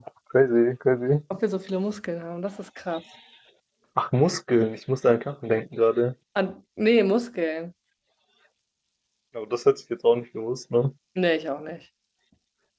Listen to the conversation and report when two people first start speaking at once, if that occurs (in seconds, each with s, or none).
none